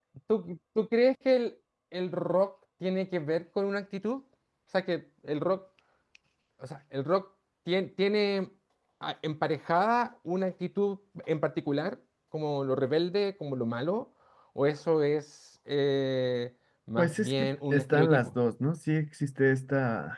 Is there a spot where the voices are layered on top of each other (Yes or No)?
Yes